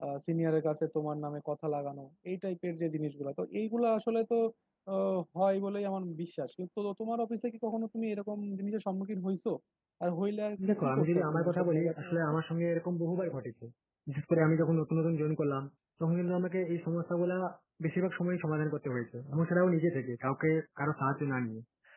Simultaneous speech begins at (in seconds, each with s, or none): 10.7 s